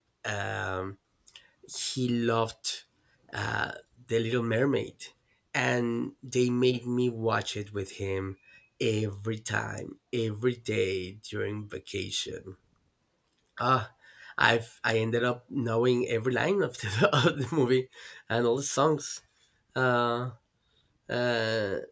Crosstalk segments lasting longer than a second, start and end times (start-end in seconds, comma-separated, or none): none